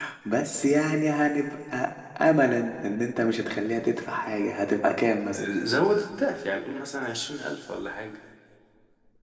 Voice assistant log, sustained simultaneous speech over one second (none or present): none